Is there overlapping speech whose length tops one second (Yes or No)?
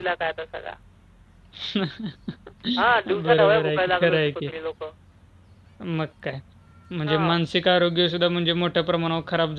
Yes